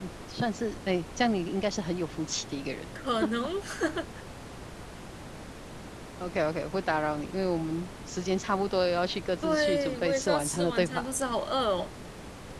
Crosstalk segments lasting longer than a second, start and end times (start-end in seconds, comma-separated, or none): 9.4-11.1